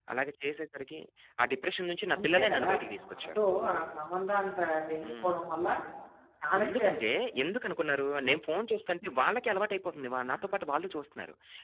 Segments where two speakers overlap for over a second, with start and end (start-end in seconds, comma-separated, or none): 2.2-3.4